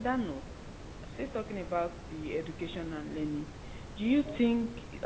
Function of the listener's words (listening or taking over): listening